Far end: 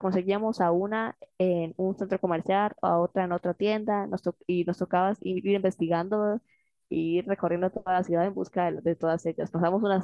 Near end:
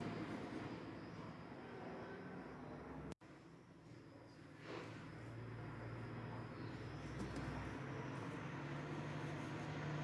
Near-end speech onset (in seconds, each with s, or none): none